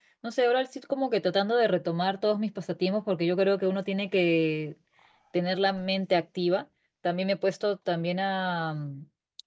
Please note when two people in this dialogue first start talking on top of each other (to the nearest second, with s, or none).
none